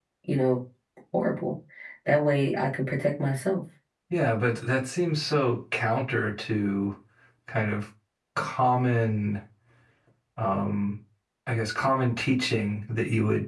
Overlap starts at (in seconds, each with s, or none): none